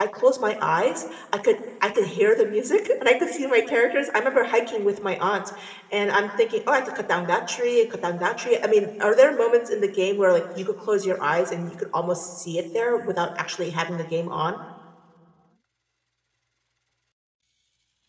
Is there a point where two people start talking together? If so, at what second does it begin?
none

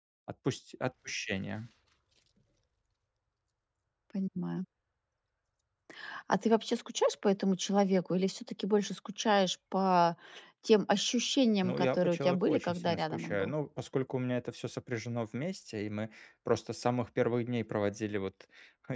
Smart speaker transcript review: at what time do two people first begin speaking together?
11.6 s

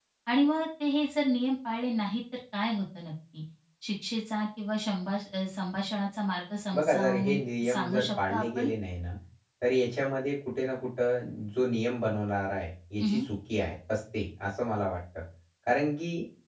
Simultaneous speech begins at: 6.7 s

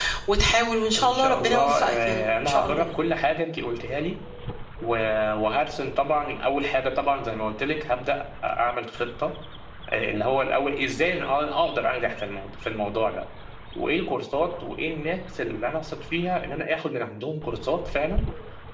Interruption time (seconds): 1.0 s

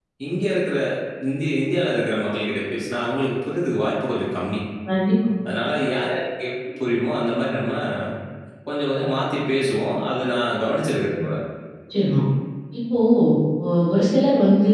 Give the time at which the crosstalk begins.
none

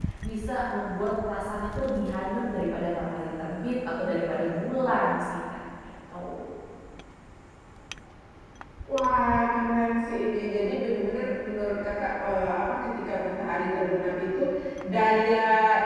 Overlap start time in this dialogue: none

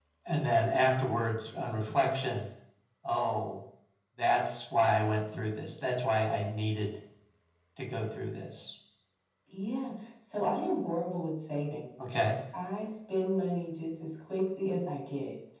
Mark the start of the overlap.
none

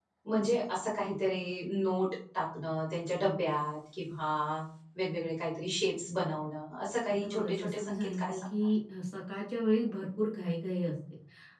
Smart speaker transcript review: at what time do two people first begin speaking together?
7.1 s

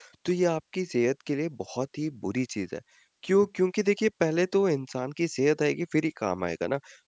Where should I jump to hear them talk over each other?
none

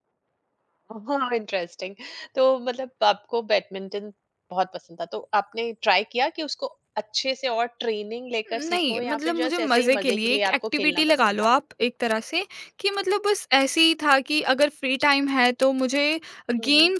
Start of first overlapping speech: 8.5 s

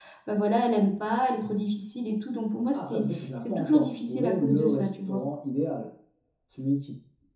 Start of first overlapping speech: 2.7 s

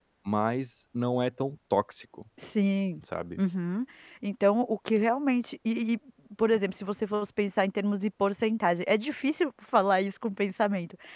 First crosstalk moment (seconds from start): none

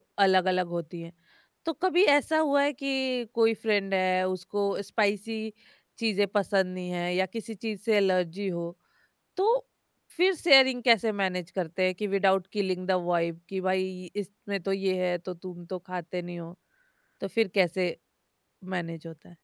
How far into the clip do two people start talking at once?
none

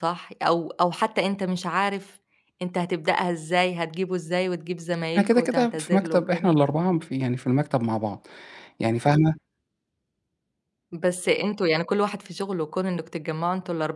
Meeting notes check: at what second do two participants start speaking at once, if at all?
5.2 s

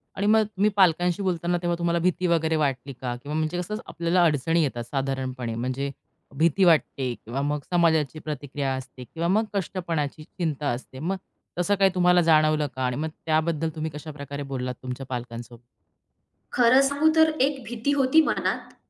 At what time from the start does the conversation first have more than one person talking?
none

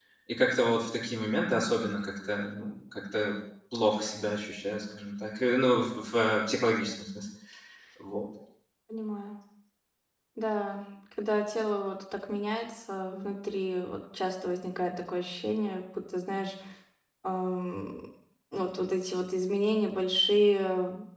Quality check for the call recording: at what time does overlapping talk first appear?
none

